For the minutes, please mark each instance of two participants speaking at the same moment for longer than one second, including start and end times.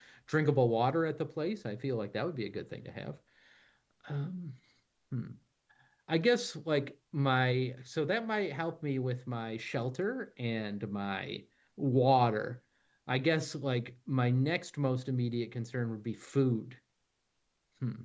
none

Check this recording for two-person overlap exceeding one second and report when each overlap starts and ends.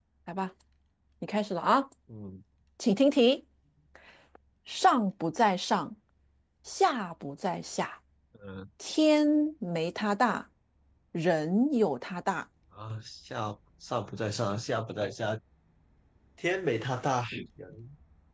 none

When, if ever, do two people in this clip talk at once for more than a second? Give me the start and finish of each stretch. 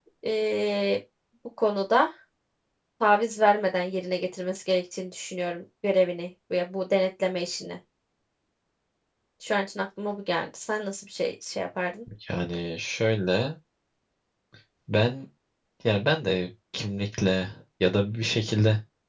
none

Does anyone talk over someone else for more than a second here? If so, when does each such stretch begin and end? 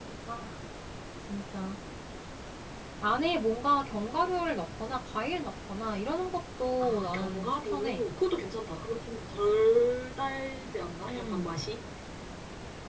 6.8-8.0

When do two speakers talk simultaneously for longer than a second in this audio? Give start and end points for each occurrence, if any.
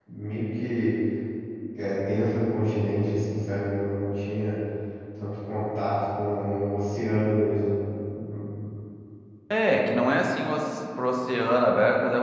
none

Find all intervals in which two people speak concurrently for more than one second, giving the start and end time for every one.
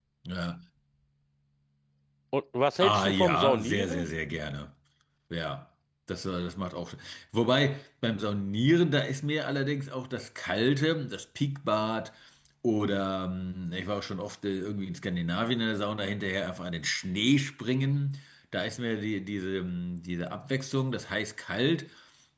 2.8-4.1

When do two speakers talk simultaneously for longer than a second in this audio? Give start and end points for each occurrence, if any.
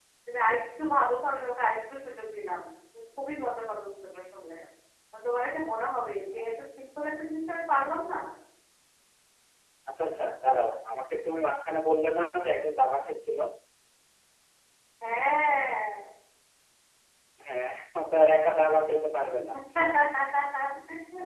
none

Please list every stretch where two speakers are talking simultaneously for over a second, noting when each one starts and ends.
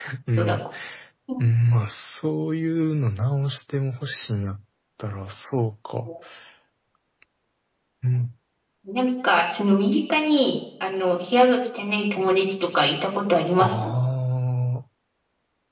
none

